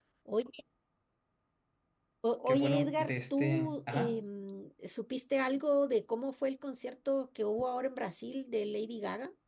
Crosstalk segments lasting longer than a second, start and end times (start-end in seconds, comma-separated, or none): 2.5-4.2